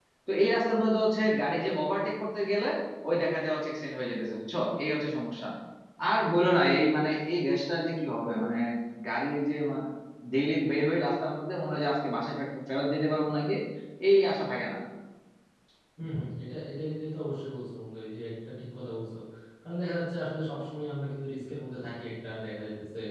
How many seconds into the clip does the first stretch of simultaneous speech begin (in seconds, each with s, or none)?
none